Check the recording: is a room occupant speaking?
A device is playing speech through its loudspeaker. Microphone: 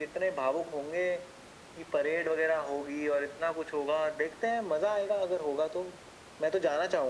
No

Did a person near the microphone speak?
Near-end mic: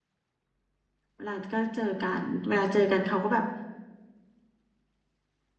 Yes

